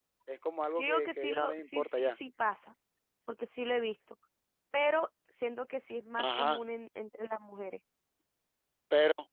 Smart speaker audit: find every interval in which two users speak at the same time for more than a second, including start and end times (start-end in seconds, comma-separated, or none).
0.8-2.2